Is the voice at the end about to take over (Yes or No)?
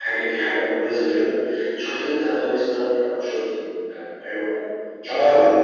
Yes